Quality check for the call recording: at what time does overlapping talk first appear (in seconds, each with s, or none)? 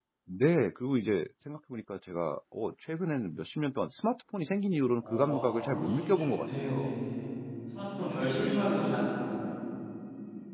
5.0 s